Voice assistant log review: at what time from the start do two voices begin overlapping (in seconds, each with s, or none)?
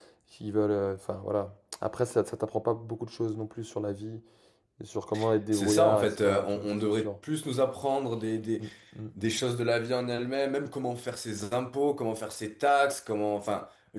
5.5 s